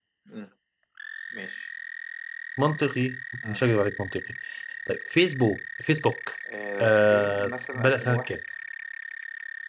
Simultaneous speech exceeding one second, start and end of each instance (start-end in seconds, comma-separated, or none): 6.8-8.4